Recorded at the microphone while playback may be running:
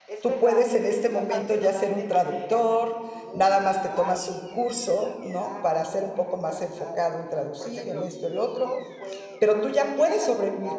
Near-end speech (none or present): present